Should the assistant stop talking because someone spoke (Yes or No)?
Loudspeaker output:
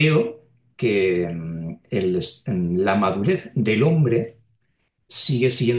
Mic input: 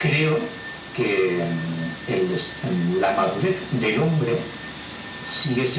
No